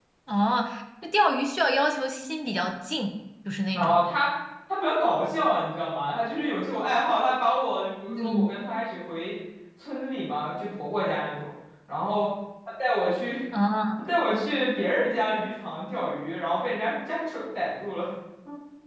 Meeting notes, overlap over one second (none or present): none